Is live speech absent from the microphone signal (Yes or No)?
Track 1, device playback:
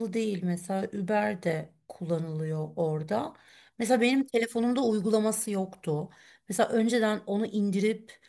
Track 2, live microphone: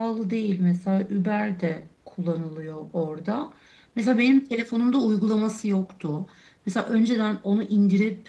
Yes